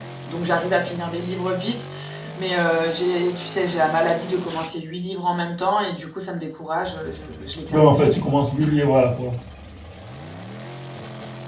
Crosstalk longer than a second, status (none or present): none